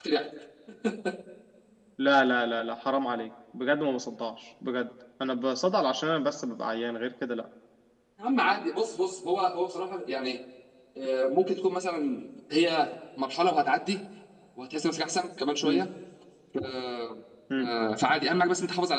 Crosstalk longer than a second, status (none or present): none